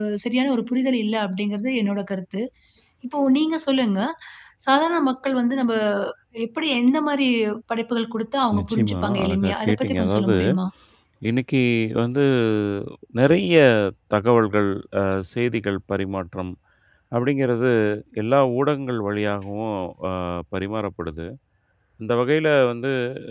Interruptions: present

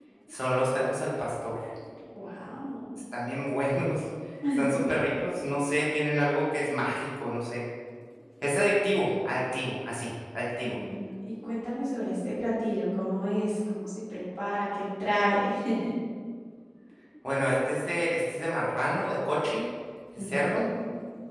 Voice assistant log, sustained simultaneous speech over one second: none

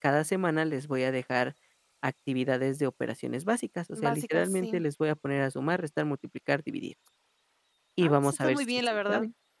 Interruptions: present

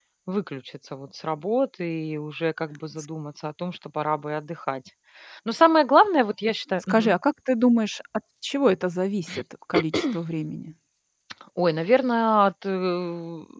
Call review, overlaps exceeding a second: none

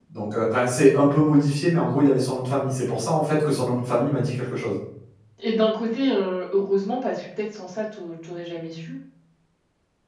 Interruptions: none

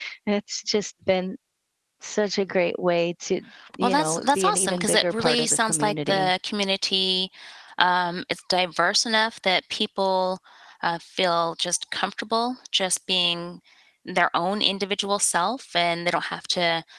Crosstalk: present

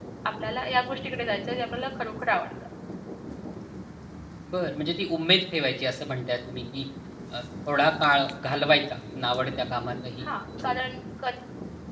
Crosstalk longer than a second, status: none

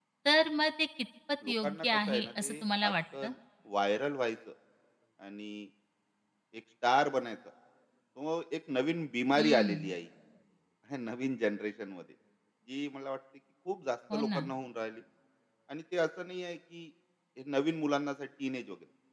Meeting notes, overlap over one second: present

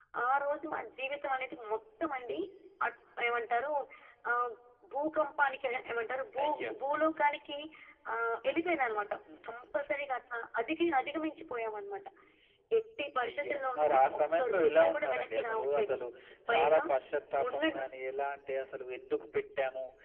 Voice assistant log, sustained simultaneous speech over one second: present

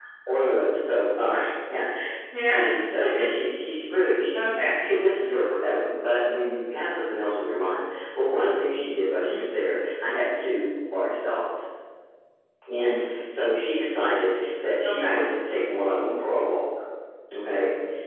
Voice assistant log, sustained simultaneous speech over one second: none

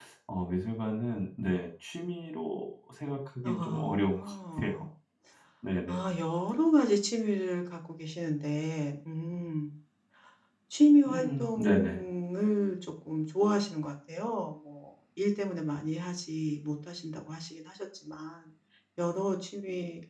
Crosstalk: present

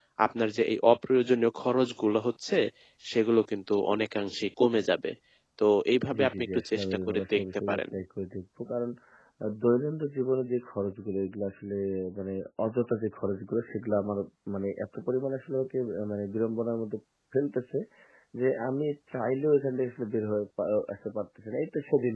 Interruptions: present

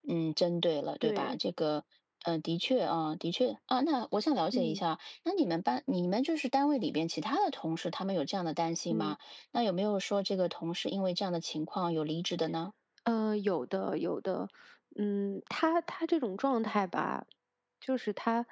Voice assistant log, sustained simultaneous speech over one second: none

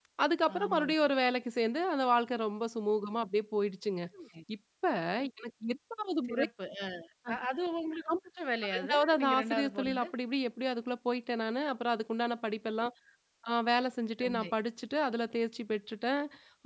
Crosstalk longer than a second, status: present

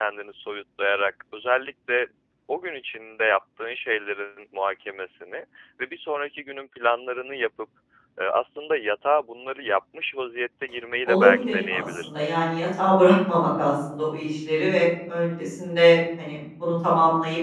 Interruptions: present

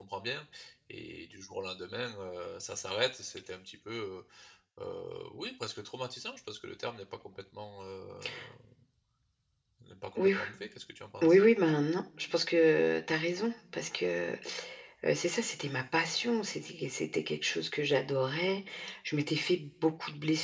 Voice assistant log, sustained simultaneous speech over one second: none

